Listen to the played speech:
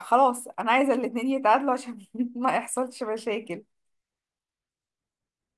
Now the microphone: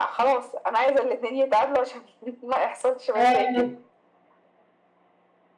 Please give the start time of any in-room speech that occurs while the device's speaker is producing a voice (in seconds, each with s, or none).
3.1 s